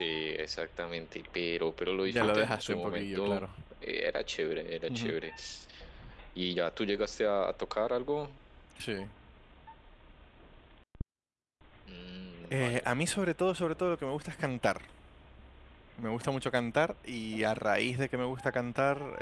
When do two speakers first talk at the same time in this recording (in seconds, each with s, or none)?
2.1 s